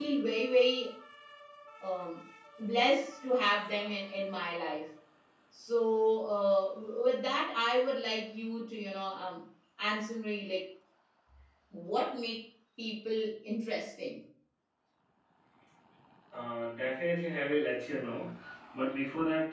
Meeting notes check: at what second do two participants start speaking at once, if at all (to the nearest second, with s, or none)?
none